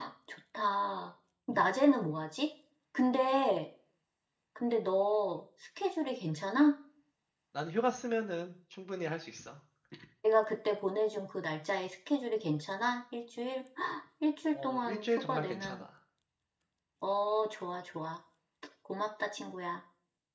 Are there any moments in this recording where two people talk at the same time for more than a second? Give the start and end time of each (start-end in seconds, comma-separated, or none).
14.5-15.8